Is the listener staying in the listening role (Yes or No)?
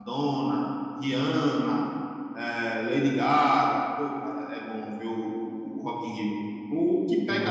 Yes